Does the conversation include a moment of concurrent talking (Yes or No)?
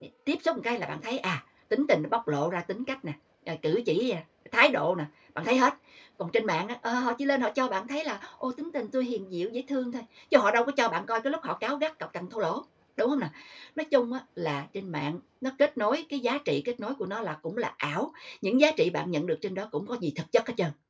No